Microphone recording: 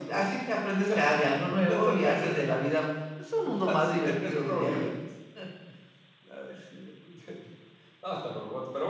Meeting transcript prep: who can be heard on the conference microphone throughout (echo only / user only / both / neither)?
echo only